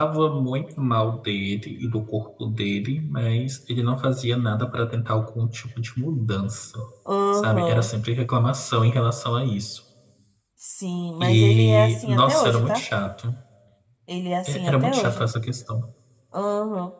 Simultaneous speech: Yes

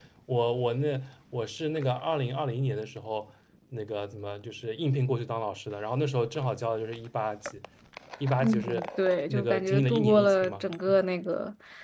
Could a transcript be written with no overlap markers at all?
No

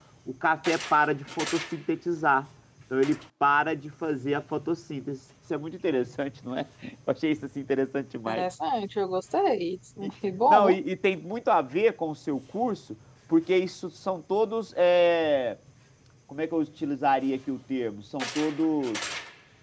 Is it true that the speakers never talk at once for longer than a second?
Yes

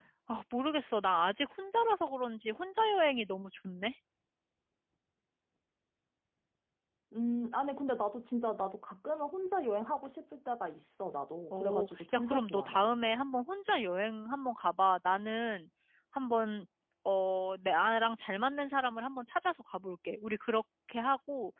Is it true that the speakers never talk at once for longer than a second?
No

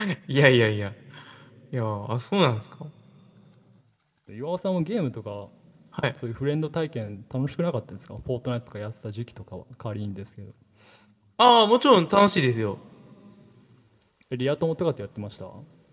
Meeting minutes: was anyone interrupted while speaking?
No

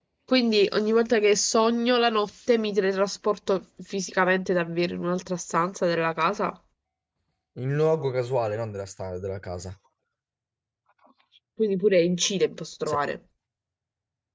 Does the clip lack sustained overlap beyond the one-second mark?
Yes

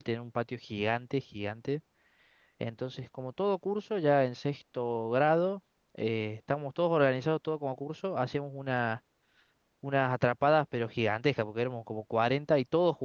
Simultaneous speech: No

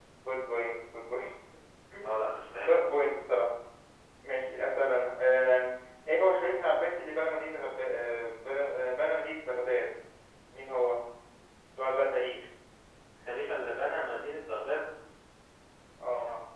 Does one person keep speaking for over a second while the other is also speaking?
No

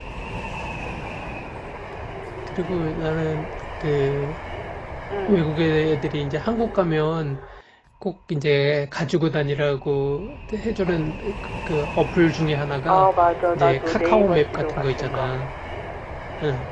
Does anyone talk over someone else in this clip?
Yes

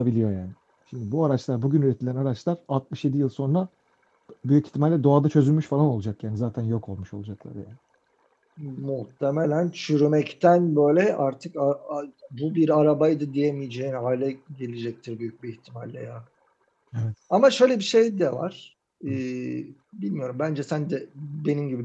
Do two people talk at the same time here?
No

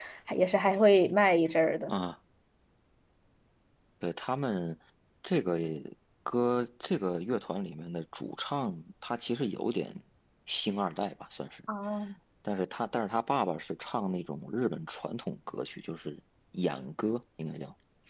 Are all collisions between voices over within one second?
Yes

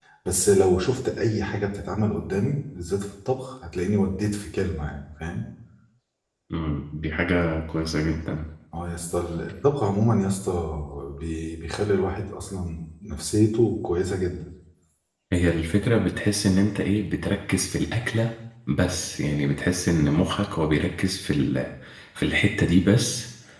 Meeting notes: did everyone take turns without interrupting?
Yes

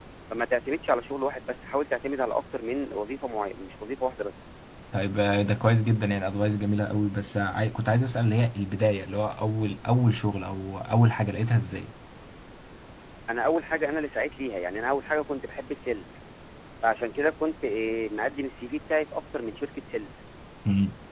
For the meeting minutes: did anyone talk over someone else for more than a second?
No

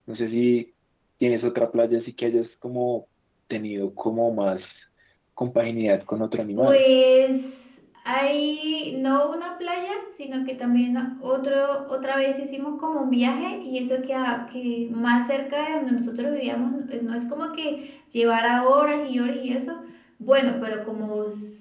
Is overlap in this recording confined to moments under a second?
Yes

